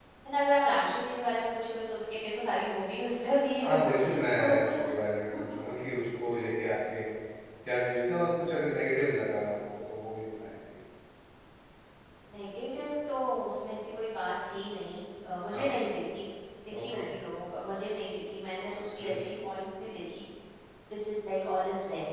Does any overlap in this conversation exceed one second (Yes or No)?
Yes